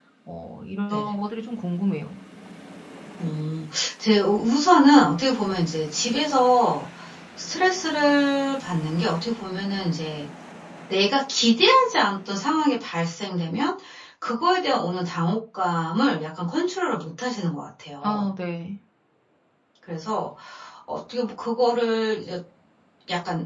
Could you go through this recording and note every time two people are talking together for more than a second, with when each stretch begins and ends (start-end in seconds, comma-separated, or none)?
none